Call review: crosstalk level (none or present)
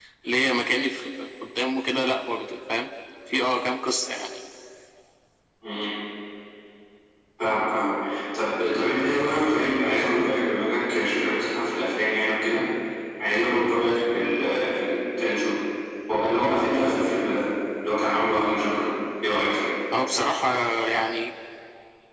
none